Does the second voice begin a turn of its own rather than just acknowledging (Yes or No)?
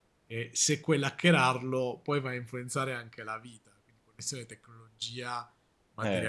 Yes